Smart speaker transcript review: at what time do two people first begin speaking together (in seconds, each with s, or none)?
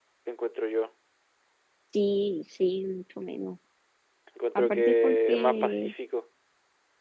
4.5 s